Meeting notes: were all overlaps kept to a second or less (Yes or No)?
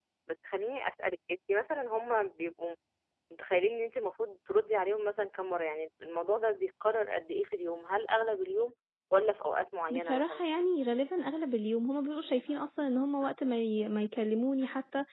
Yes